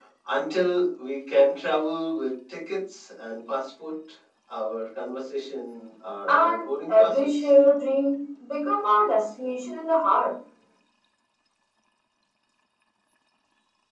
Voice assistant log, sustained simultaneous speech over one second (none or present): present